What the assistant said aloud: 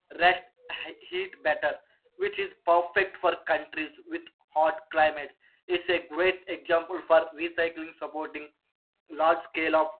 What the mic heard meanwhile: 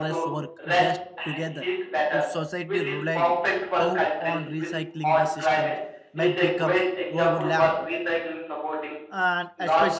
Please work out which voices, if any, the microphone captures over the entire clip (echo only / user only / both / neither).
both